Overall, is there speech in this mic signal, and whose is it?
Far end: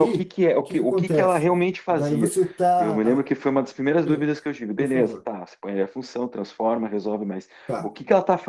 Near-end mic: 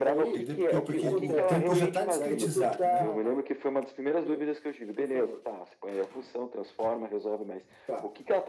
both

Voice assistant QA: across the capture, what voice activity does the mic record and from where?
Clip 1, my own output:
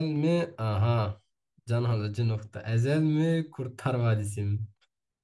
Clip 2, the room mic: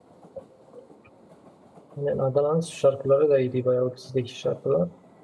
user only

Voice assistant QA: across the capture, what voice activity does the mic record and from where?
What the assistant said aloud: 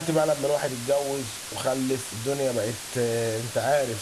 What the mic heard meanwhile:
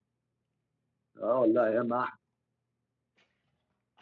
user only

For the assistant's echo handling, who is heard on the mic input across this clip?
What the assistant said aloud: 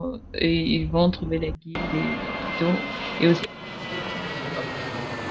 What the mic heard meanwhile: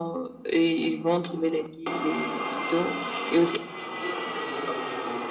echo only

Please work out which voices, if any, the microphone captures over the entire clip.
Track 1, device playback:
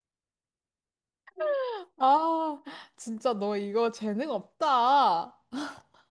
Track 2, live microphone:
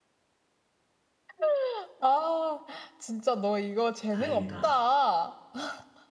both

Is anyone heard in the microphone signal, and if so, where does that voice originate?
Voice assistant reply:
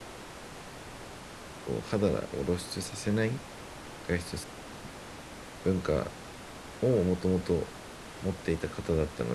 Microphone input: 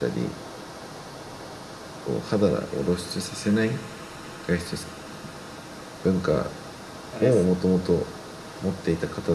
both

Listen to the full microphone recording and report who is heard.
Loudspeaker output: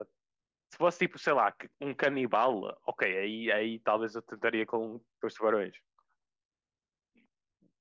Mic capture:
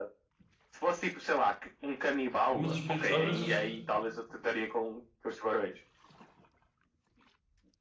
both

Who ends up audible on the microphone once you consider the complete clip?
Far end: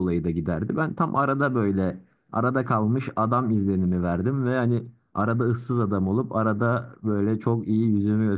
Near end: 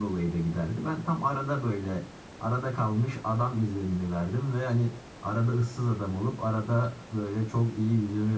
echo only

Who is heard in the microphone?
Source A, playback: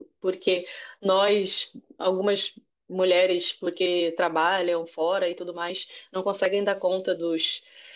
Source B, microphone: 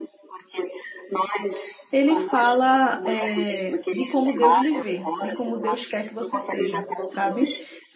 both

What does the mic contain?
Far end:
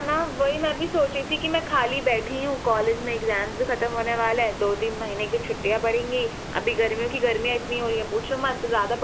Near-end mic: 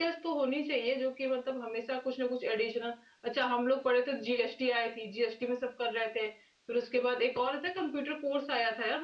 user only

